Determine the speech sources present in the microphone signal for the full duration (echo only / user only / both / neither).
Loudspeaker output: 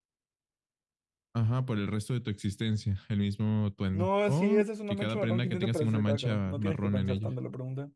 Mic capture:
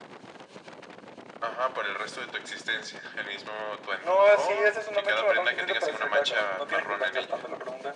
echo only